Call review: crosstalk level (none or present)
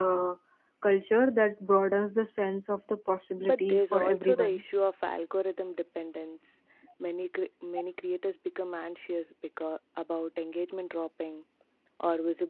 present